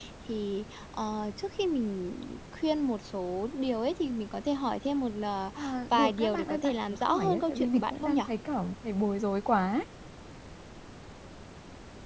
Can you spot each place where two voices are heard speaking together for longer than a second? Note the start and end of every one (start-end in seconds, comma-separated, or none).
5.9-8.2